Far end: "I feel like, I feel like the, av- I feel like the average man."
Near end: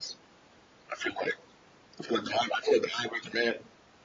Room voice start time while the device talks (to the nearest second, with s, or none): none